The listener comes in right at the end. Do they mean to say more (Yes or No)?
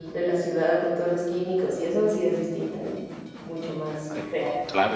Yes